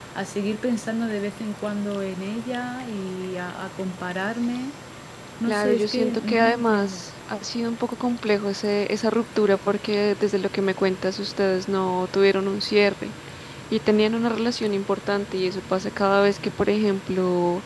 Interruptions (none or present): present